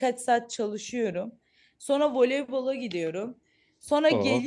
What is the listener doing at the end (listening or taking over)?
listening